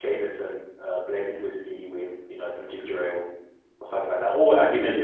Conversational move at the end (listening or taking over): listening